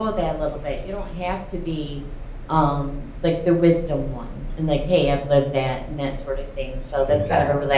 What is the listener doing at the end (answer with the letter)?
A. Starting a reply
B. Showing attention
B